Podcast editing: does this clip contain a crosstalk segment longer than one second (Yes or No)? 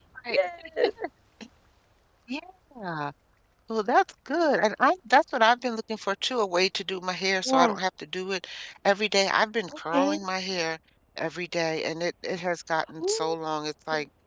No